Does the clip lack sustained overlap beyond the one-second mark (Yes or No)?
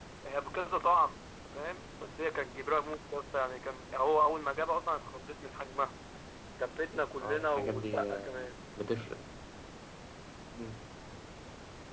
No